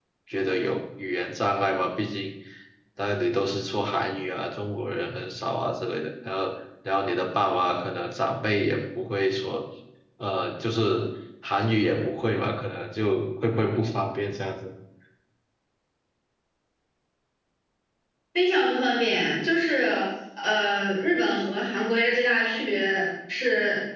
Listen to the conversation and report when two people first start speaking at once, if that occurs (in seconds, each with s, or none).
none